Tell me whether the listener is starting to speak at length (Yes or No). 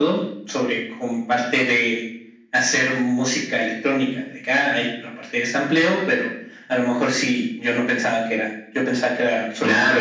Yes